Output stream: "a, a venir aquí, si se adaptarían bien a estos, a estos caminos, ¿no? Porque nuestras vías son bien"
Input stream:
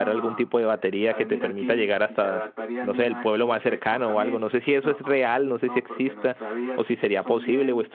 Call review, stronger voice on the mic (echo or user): user